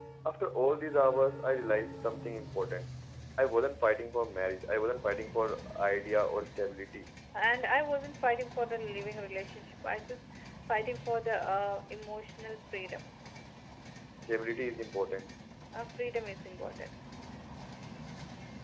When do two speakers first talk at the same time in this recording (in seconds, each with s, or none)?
none